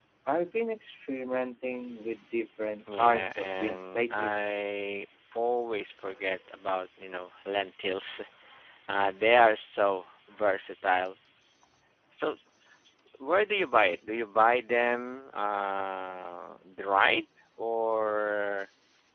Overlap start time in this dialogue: 3 s

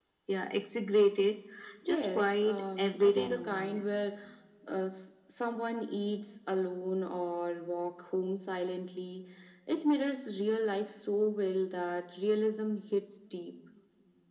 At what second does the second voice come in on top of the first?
2 s

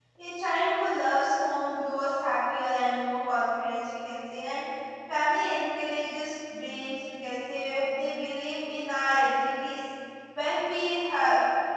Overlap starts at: none

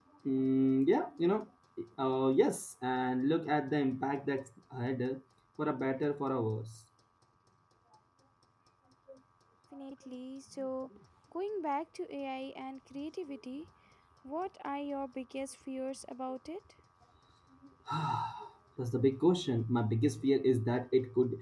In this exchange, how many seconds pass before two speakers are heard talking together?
none

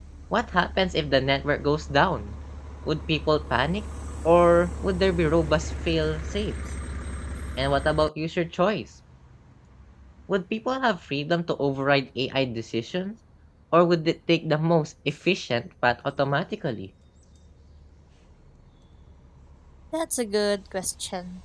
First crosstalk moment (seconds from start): none

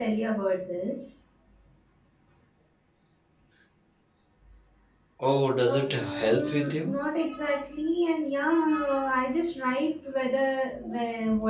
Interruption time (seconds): 6 s

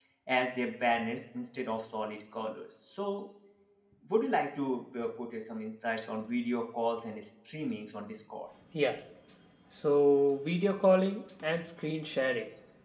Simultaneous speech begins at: none

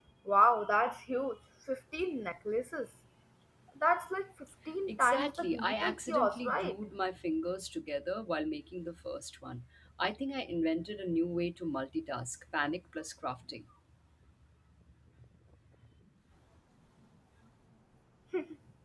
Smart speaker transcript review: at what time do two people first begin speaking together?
5 s

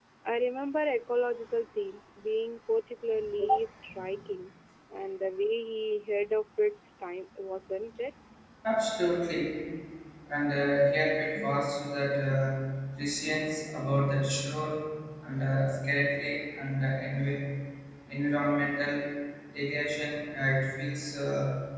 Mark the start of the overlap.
none

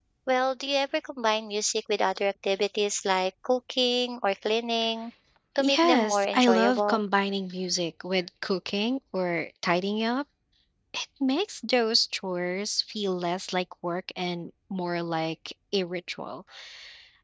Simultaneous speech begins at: 6 s

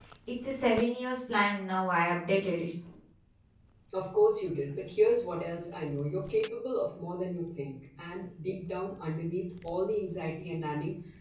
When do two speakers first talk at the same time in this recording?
none

